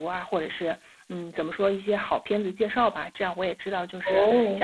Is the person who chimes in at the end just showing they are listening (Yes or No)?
Yes